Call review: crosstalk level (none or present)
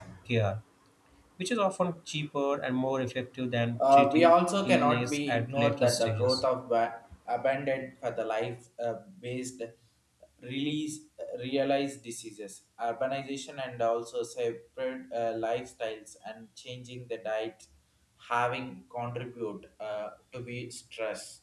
present